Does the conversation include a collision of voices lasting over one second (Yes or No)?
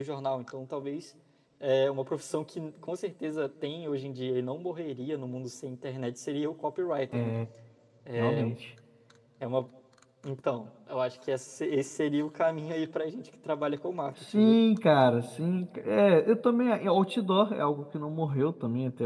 No